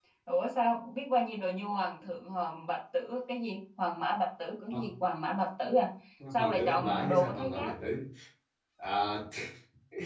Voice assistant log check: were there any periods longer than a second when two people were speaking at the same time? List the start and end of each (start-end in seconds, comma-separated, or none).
6.3-7.7